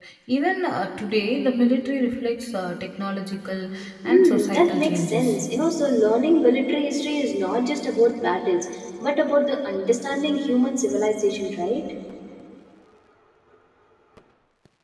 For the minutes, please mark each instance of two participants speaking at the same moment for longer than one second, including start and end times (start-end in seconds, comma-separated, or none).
4.1-5.4